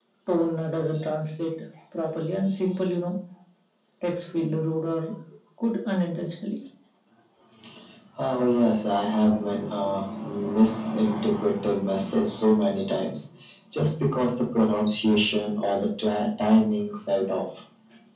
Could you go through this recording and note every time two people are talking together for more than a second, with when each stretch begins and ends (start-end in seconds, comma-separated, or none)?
none